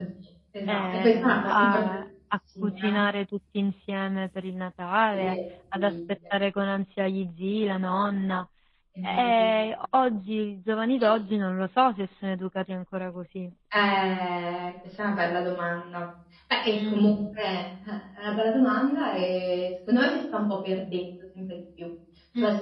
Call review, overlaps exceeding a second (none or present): present